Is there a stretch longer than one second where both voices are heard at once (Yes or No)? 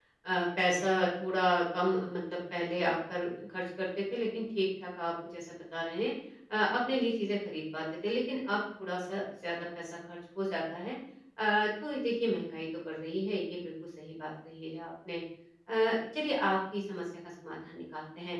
No